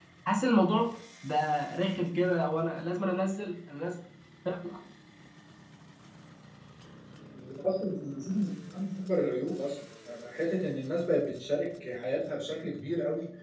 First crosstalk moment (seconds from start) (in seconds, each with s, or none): none